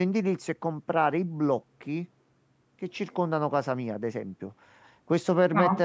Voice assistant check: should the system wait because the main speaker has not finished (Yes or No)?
Yes